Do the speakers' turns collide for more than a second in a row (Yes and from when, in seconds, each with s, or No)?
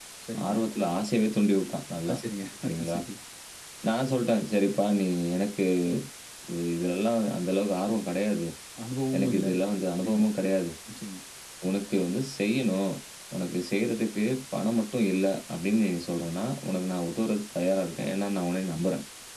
No